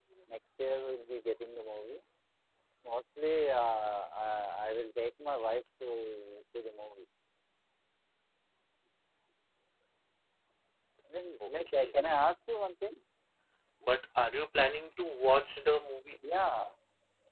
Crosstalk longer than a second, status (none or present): none